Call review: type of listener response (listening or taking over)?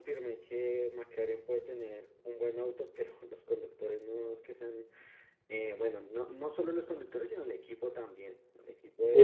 taking over